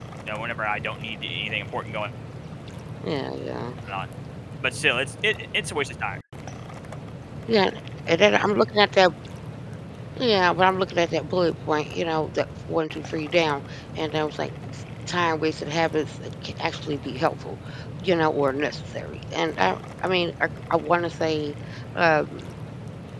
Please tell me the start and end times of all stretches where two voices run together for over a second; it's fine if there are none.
none

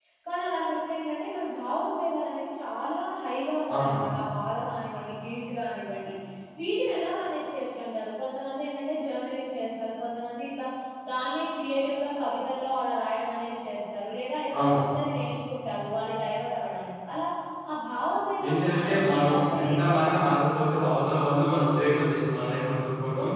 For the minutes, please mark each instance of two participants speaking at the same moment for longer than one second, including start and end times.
18.5-20.6

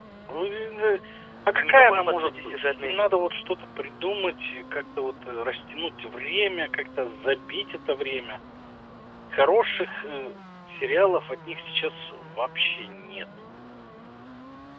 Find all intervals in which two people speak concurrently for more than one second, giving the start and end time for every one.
1.5-3.3

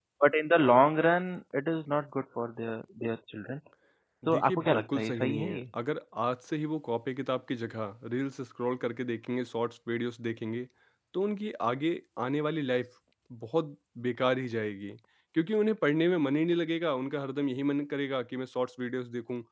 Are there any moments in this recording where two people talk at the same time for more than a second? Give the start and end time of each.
4.2-5.6

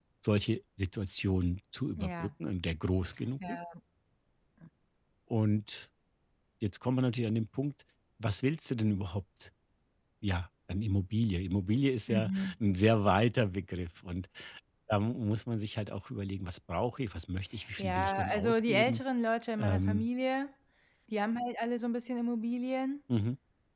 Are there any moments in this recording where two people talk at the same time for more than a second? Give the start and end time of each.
17.8-19.0

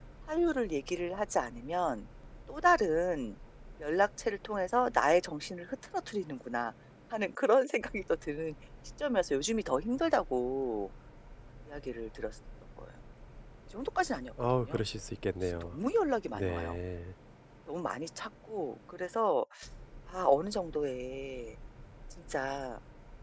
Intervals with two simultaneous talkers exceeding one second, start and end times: none

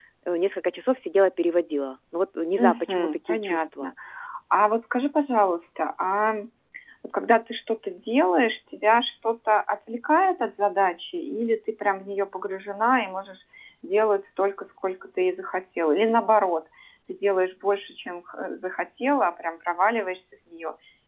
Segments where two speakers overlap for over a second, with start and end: 2.6-3.9

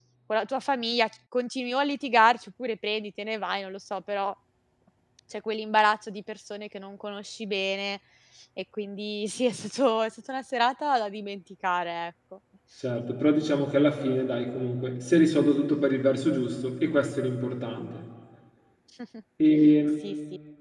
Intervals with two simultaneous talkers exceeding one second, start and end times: none

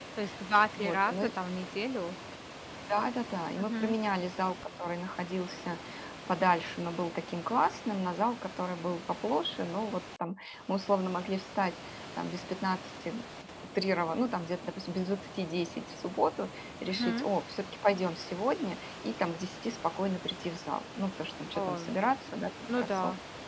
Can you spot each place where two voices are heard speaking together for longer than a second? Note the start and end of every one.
none

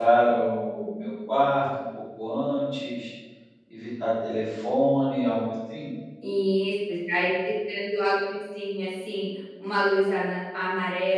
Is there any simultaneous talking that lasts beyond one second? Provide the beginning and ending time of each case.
none

